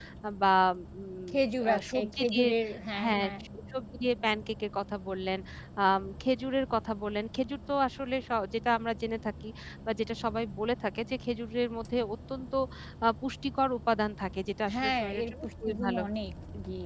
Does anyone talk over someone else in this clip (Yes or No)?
Yes